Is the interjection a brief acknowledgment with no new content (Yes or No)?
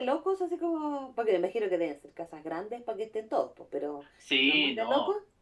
No